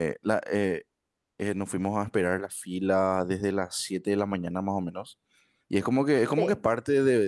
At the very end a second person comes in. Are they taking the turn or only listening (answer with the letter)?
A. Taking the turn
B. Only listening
B